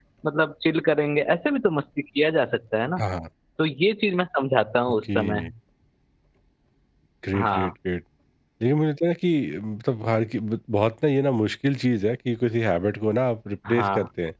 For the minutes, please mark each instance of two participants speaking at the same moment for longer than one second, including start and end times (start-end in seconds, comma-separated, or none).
none